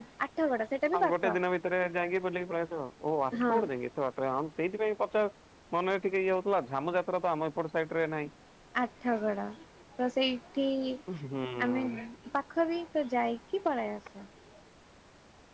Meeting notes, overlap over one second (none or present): none